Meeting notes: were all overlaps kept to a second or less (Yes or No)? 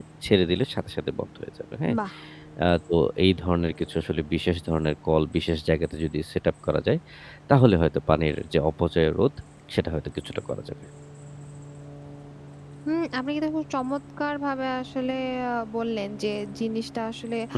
Yes